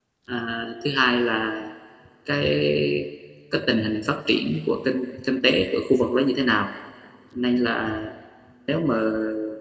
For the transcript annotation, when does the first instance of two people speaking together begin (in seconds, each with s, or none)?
none